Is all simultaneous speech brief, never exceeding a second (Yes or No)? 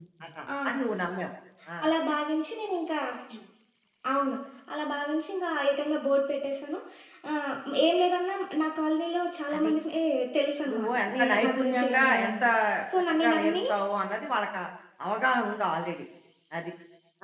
No